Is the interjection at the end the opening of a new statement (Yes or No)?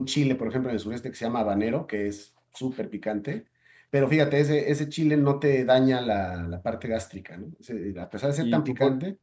Yes